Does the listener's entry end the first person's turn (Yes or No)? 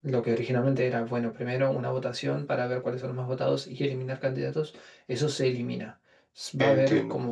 No